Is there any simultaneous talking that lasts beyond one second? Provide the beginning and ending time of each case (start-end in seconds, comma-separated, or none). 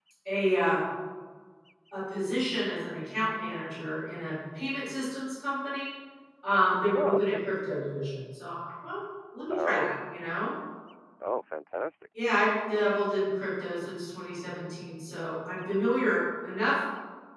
none